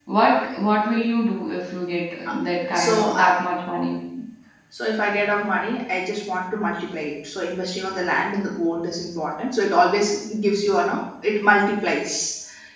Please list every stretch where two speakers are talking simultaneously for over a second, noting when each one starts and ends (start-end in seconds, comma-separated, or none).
none